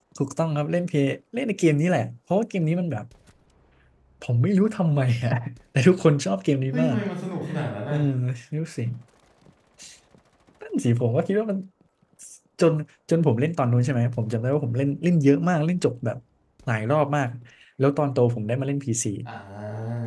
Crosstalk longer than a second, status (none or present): none